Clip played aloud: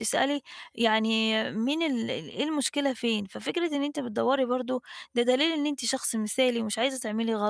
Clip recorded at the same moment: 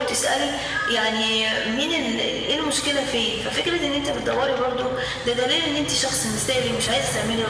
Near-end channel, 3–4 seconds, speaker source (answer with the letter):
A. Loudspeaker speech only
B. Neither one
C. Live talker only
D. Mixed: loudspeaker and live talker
A